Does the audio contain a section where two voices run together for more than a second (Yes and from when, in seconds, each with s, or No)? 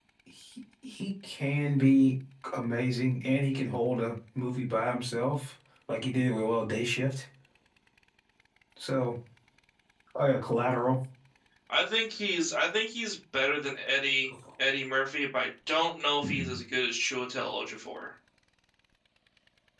No